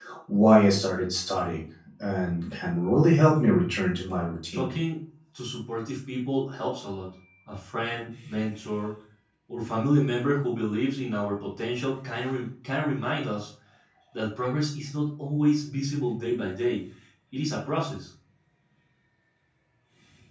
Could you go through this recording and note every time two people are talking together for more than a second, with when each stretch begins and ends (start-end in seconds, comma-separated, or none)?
none